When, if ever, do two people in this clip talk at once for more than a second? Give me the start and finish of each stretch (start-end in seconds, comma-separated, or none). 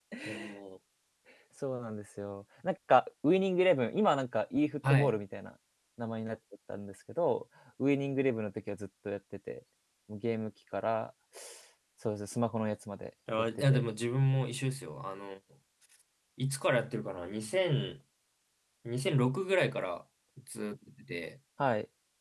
none